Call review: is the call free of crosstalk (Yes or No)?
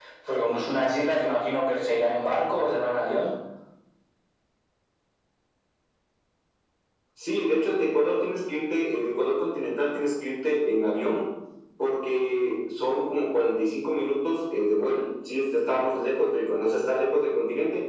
Yes